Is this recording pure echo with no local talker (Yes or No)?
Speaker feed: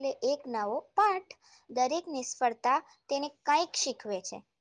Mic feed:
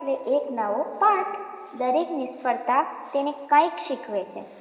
Yes